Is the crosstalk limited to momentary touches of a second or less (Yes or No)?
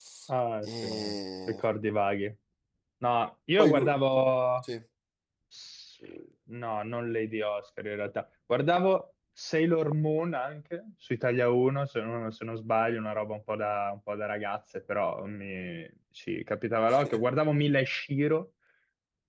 Yes